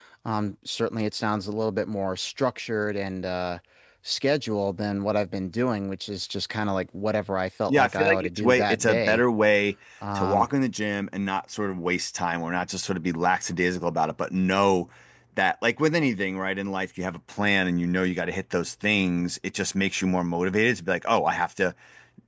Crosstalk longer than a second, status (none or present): present